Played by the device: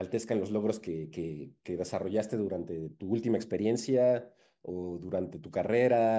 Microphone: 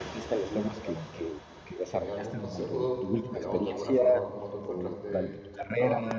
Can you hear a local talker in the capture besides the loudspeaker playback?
Yes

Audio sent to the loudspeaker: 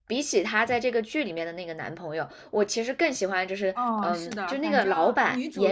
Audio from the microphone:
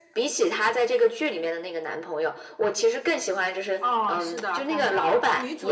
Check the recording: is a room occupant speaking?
No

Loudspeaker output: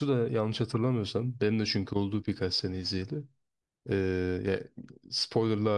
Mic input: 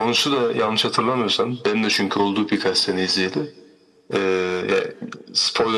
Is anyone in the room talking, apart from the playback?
No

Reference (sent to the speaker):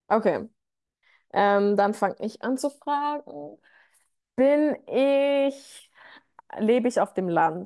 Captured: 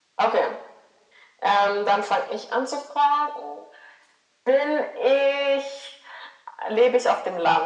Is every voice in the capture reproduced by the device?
Yes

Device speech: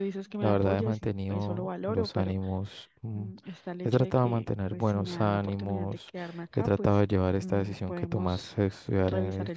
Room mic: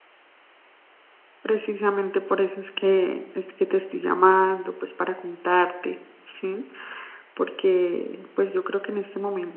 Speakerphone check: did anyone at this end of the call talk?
Yes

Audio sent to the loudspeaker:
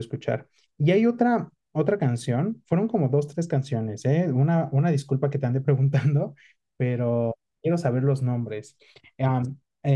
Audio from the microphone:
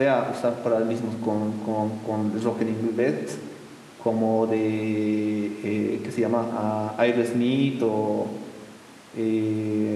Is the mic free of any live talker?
No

